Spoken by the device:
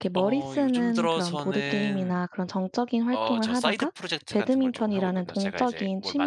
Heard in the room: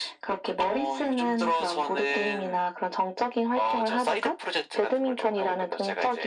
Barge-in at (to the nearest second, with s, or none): none